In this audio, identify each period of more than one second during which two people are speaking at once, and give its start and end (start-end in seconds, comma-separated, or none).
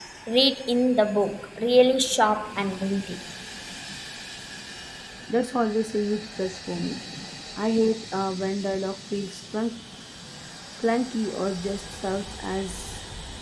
none